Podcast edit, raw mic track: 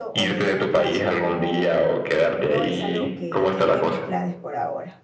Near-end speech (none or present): present